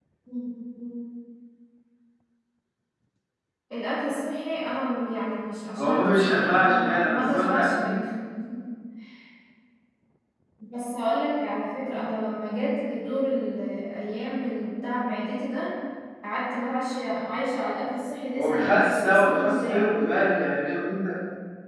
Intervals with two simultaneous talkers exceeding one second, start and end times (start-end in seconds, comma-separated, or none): 5.8-7.9, 18.4-19.9